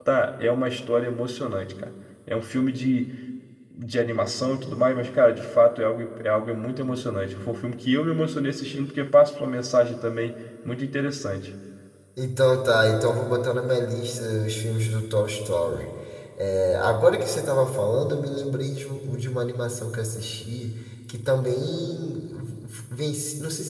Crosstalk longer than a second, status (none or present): none